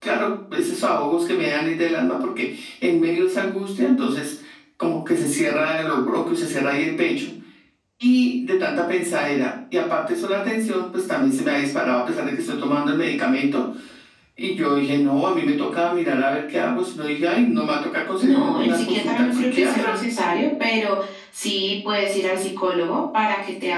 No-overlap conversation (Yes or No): No